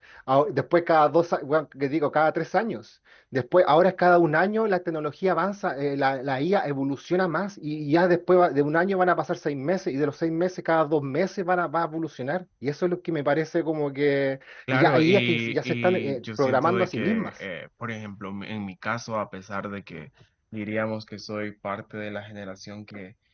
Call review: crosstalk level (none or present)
present